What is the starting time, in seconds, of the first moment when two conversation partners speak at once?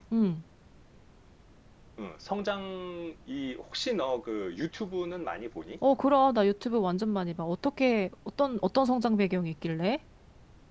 none

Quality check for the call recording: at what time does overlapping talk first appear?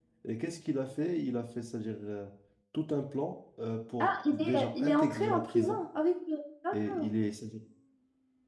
4 s

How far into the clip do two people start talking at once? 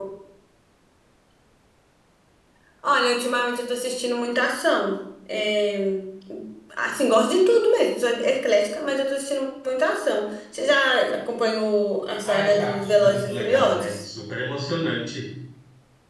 12 s

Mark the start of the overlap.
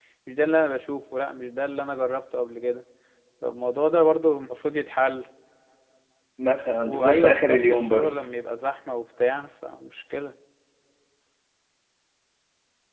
7 s

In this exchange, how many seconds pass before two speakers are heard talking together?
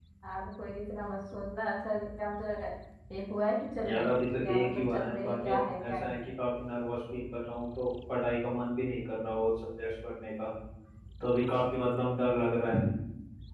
4 s

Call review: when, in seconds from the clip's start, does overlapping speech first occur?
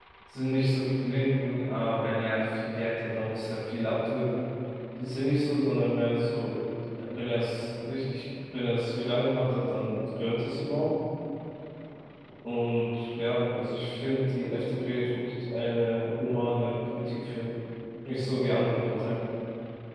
none

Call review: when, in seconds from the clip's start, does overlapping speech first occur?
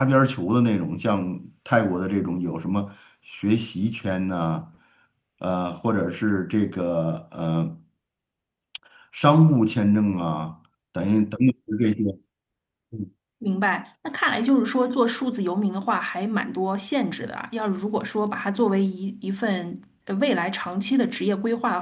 none

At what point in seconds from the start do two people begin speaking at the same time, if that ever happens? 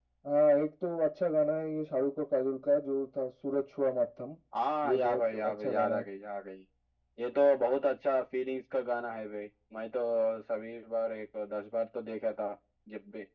5 s

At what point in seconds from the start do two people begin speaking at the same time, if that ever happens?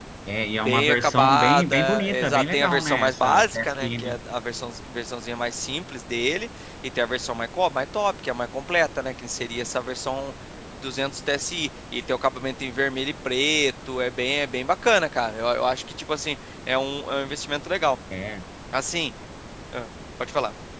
1 s

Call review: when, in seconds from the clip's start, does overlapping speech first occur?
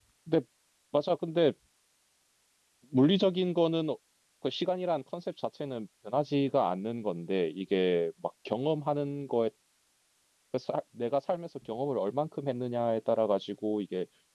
none

